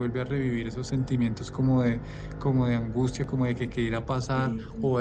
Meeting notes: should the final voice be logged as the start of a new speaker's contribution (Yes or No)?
No